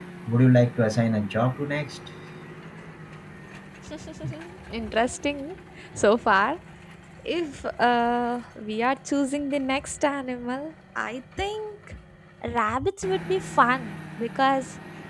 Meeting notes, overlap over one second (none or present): none